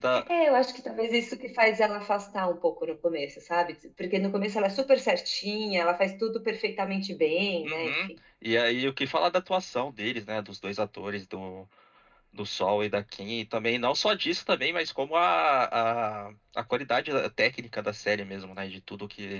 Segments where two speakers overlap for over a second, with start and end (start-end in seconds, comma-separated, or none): none